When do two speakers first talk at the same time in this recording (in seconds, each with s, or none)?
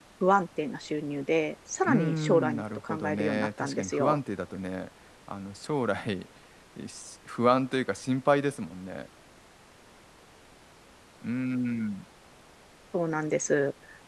1.9 s